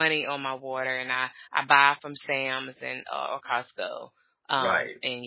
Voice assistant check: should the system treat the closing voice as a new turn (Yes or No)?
Yes